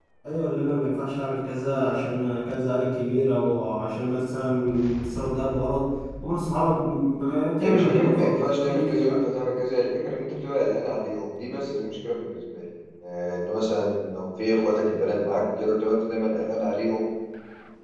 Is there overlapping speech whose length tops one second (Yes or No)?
Yes